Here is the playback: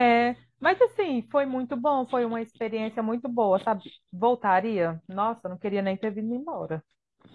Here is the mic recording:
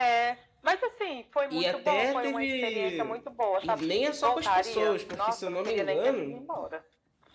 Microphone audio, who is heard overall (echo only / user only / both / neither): both